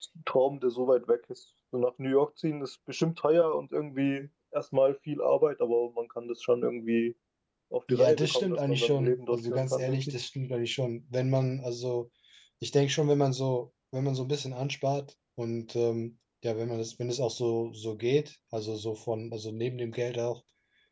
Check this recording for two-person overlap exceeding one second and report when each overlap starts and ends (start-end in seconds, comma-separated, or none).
7.9-10.2